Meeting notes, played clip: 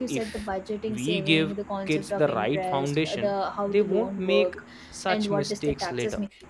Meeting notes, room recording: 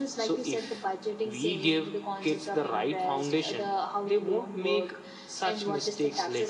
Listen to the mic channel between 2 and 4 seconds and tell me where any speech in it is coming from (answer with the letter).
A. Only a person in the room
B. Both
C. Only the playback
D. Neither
C